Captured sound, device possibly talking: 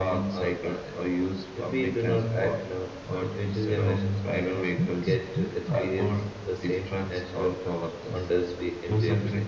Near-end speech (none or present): present